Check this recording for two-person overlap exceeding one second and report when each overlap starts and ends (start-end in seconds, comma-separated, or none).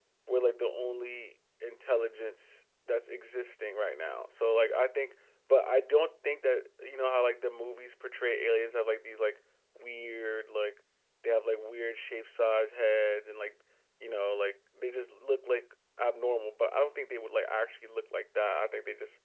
none